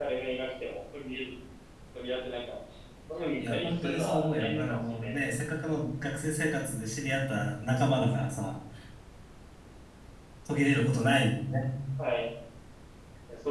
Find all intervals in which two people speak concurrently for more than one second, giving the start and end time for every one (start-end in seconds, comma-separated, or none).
3.4-5.1